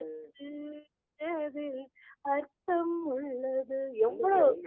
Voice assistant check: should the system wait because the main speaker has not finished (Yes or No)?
No